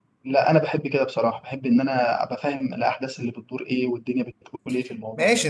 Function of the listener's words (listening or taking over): taking over